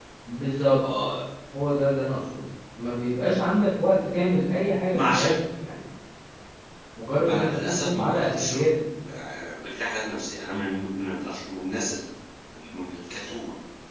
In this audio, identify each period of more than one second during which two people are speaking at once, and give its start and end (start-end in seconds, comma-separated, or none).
7.2-8.6